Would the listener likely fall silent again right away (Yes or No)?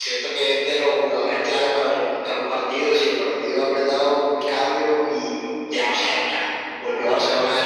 Yes